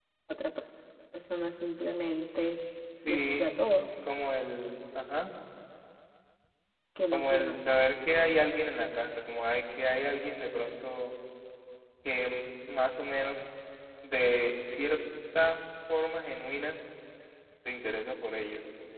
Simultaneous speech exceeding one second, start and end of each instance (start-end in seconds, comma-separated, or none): none